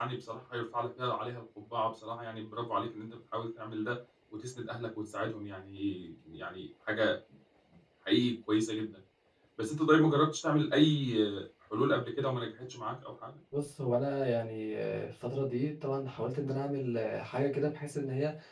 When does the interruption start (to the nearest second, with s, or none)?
none